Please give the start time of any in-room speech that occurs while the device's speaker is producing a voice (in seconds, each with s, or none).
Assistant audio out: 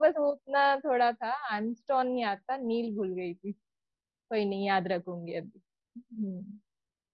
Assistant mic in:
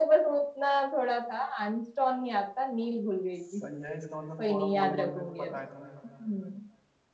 3.3 s